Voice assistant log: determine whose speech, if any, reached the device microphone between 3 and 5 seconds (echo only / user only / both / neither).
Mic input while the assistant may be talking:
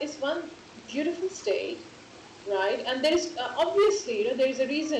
echo only